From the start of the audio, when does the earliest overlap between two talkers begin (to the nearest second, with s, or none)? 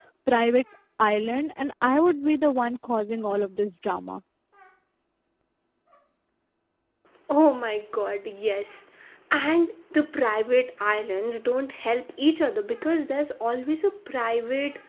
none